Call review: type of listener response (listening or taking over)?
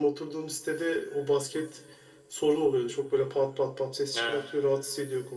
listening